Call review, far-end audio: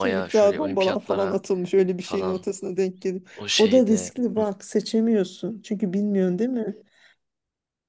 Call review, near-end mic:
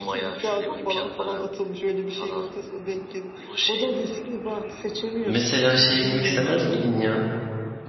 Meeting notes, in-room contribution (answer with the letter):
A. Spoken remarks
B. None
A